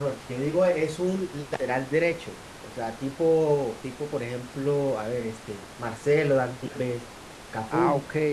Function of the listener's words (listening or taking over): taking over